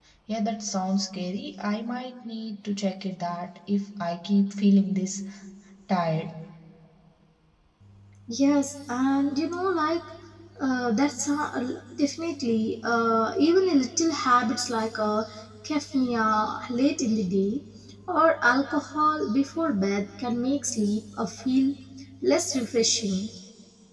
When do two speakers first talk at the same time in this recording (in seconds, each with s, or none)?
none